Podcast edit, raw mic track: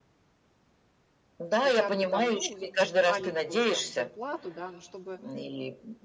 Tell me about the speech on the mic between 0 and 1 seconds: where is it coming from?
neither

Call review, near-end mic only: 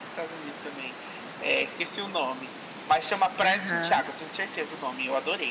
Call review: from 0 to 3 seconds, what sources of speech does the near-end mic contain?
echo only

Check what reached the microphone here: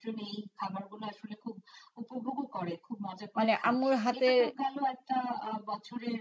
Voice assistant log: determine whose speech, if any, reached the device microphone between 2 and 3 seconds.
echo only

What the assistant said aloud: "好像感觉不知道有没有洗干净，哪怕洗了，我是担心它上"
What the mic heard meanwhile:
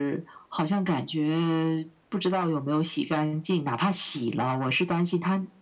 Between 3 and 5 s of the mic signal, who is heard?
echo only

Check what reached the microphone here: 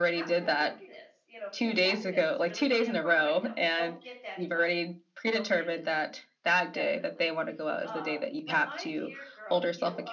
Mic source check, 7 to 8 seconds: both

